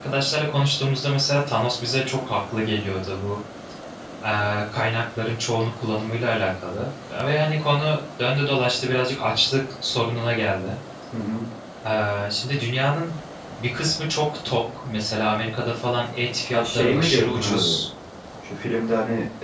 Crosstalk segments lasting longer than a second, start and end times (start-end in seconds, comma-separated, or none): 16.5-17.8